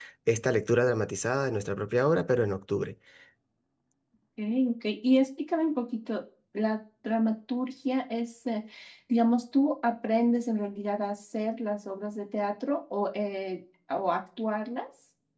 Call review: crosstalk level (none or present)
none